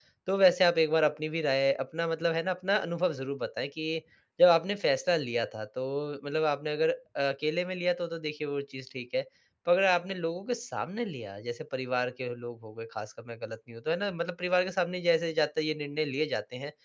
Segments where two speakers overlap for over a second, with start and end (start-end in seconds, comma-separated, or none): none